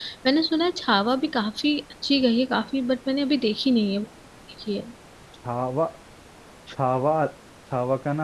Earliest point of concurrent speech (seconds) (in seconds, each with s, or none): none